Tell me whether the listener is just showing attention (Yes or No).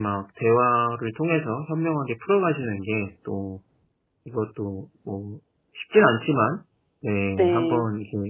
Yes